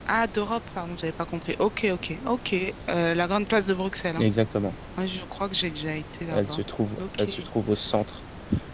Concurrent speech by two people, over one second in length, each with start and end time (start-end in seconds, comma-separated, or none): none